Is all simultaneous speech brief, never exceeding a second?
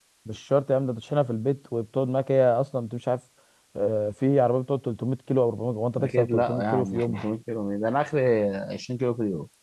No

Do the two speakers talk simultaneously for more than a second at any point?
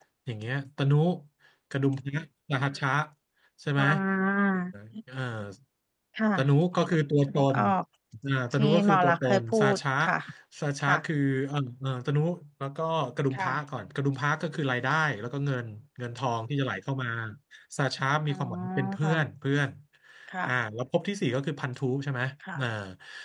Yes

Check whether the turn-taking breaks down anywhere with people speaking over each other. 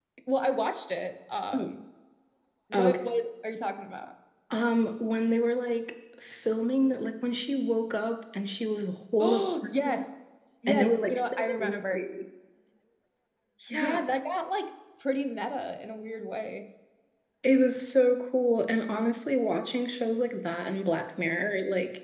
Yes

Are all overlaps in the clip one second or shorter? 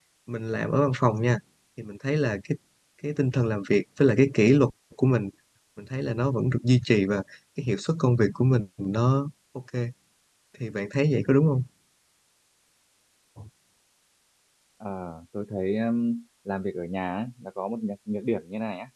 Yes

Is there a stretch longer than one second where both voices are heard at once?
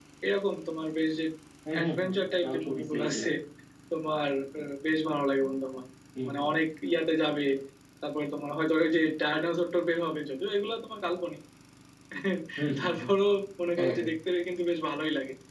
Yes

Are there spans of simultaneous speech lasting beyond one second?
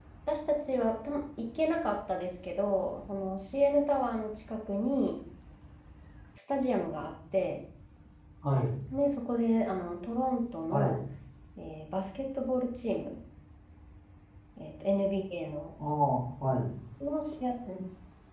No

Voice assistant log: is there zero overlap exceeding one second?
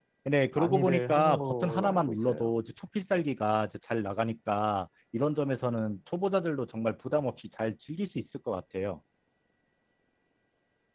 No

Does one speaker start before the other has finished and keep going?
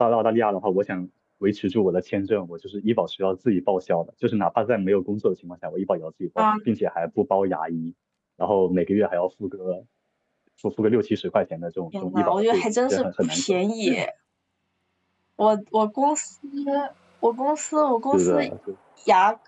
Yes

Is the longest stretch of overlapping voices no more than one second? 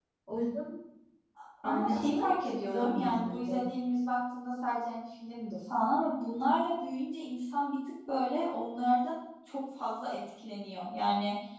No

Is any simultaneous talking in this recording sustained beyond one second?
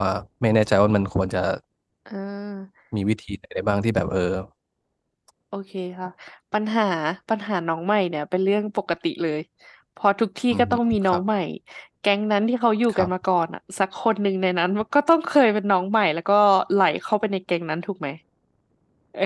No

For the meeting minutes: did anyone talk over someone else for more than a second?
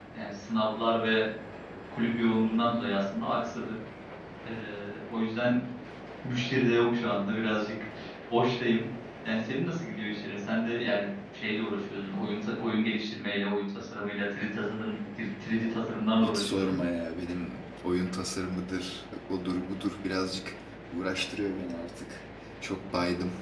No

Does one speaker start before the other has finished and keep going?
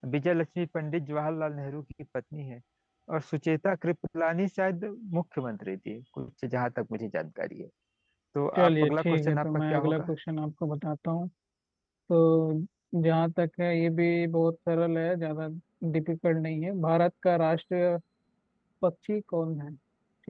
Yes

